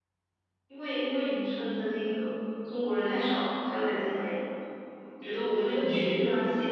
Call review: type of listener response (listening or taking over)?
listening